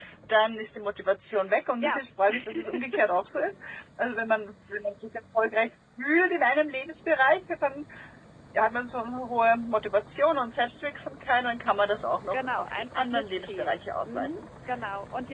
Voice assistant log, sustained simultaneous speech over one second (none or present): present